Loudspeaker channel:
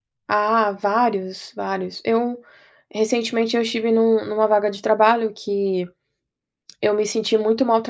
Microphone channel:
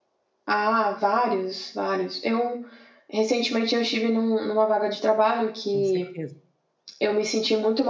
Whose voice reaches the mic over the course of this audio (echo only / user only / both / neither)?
both